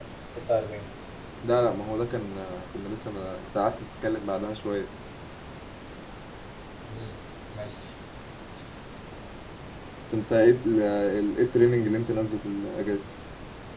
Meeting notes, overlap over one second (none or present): none